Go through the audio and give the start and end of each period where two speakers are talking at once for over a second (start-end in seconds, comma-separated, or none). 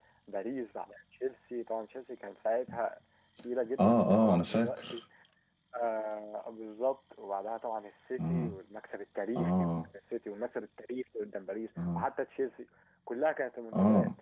3.8-5.0